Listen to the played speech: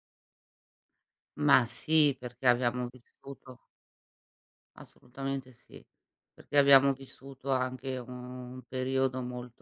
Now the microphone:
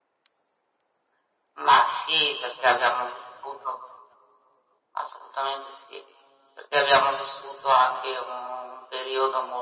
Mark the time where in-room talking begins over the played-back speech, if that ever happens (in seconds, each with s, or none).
none